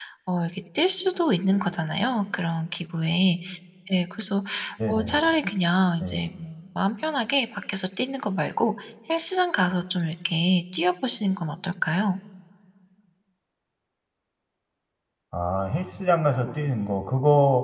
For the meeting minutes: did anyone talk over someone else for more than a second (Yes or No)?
No